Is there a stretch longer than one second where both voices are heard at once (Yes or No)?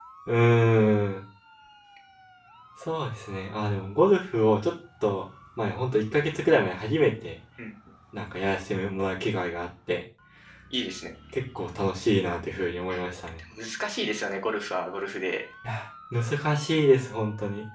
No